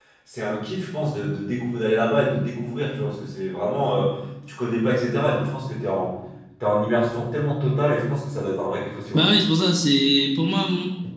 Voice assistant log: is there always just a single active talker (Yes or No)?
Yes